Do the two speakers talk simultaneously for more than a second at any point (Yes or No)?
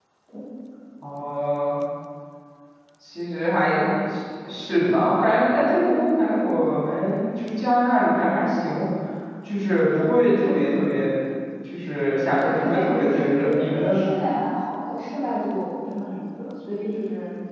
Yes